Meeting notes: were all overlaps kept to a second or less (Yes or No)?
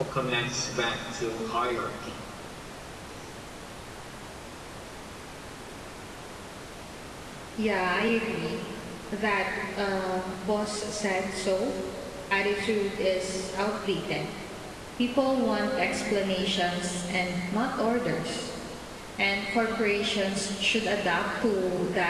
Yes